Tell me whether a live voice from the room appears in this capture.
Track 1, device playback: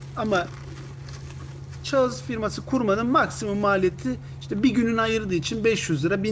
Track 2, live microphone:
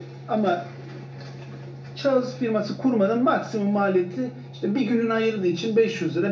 No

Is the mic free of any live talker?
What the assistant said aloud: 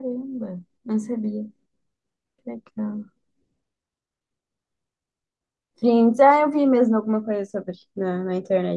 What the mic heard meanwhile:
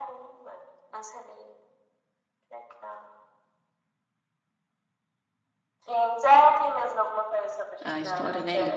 No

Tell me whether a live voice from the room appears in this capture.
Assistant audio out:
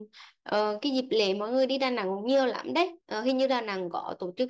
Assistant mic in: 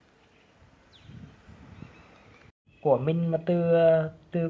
Yes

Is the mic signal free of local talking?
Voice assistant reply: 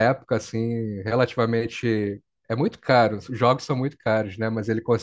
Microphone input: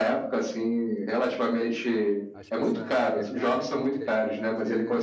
No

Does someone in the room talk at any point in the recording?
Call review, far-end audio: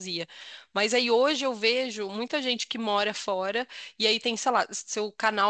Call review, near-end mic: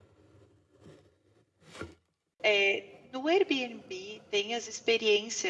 Yes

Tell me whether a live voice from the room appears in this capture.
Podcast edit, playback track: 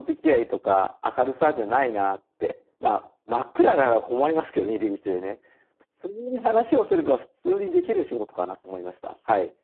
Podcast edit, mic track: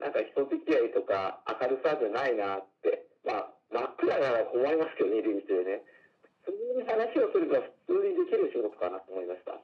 No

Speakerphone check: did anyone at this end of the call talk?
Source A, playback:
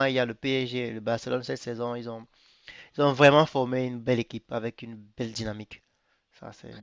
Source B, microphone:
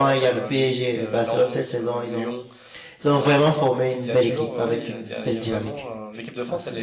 Yes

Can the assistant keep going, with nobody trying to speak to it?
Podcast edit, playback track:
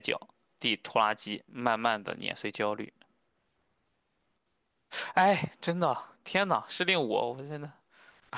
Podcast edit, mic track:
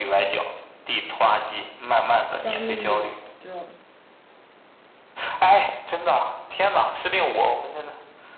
No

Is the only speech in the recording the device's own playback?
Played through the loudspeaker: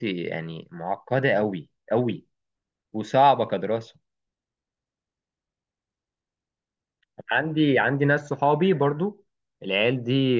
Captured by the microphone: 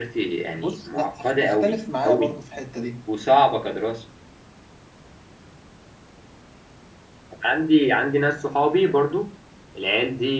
No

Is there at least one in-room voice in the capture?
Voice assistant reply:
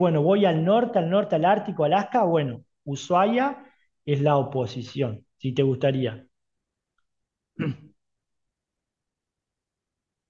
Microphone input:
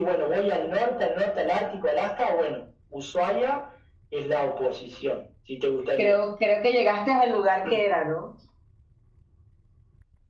Yes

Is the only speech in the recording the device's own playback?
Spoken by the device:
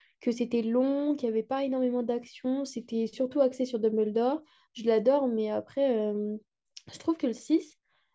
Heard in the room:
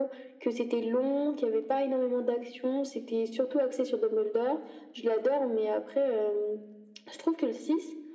Yes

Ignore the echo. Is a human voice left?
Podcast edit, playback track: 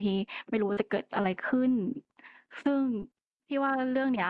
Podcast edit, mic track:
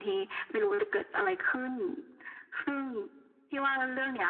No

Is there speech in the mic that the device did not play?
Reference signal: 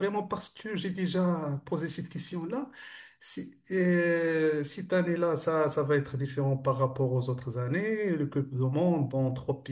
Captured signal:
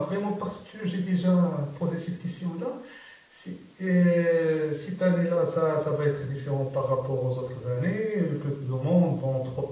No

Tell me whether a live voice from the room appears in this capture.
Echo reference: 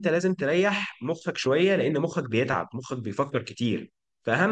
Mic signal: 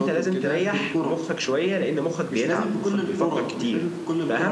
Yes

